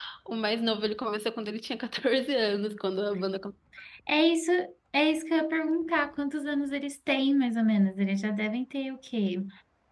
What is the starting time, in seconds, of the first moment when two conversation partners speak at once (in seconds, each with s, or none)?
none